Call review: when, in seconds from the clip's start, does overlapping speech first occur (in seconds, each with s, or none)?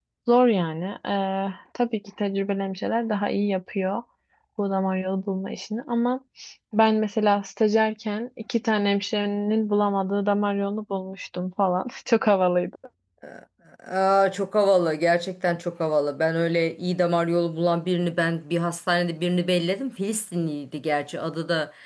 none